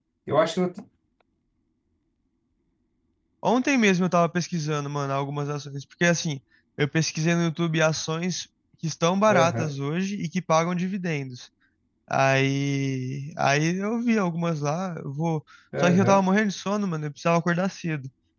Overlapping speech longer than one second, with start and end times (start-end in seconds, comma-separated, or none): none